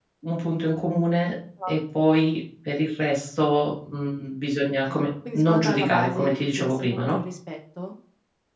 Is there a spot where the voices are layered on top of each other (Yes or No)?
Yes